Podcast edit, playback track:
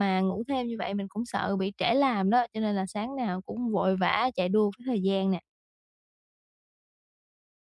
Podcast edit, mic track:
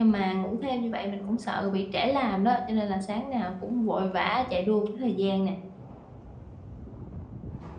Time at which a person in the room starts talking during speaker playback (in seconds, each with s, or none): none